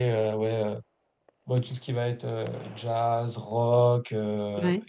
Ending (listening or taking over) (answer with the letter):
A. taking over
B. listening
B